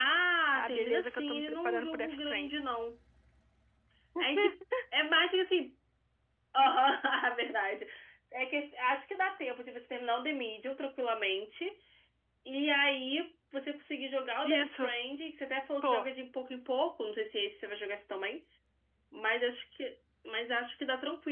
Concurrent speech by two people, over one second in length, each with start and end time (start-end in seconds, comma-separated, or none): 0.5-2.6